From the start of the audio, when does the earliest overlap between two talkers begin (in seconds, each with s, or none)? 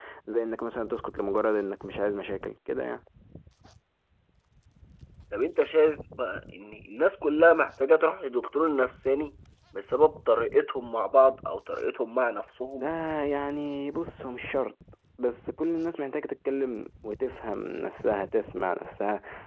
none